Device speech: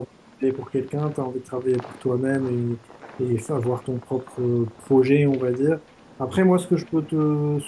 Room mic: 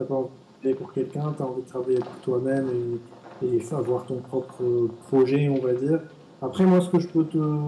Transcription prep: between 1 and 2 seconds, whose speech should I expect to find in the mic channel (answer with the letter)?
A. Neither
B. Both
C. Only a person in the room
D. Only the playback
D